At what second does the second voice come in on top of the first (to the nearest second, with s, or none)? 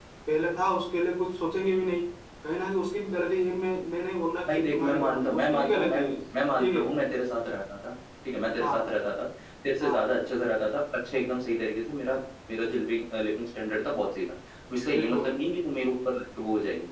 4 s